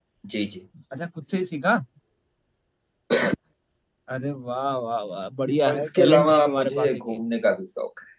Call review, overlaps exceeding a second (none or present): present